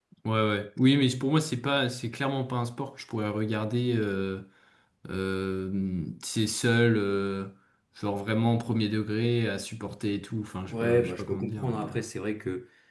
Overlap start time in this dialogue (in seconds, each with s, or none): 10.7 s